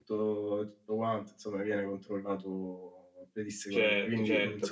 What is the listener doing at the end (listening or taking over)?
taking over